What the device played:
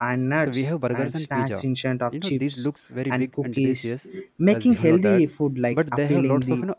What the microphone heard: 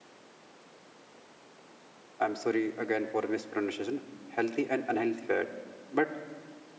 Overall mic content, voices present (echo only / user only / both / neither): user only